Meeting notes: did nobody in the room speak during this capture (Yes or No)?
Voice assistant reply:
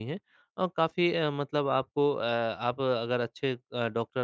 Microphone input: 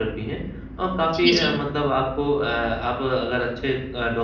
No